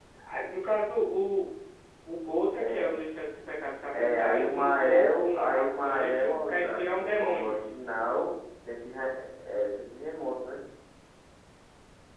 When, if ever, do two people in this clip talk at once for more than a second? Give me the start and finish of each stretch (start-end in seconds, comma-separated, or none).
3.9-7.5